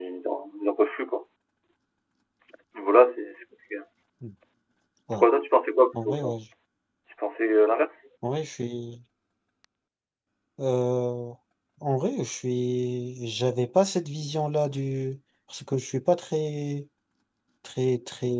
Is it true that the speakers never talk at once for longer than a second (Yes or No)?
Yes